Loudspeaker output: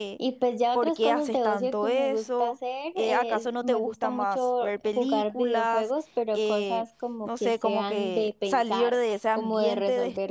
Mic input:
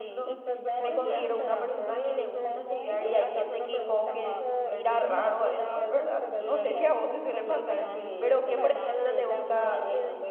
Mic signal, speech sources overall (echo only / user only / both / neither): both